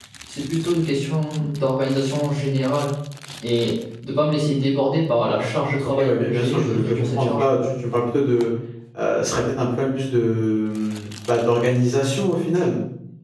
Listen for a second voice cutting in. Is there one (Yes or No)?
Yes